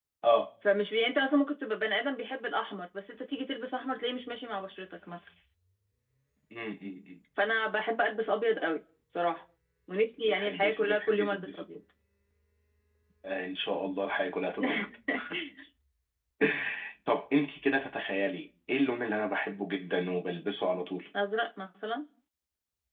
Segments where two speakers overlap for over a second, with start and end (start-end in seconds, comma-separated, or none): 10.2-11.8